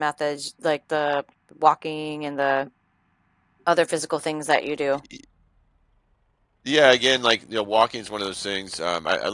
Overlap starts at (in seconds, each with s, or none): none